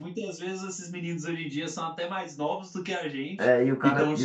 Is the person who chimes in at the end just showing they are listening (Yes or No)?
No